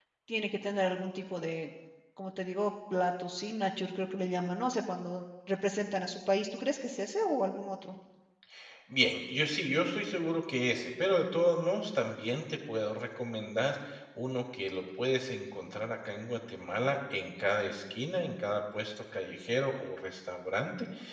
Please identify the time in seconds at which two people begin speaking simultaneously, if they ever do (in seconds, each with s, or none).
none